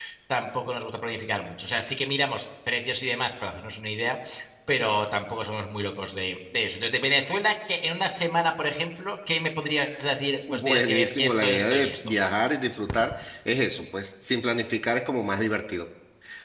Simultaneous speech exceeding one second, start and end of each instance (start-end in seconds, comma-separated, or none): 10.5-12.2